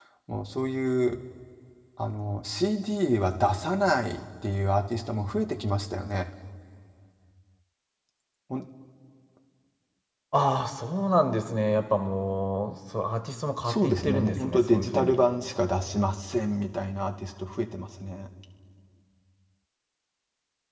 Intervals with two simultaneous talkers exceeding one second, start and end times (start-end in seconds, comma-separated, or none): 13.6-15.2